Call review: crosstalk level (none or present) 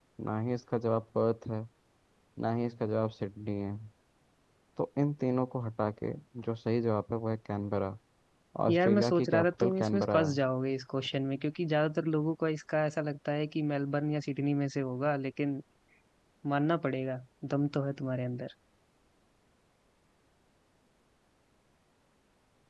present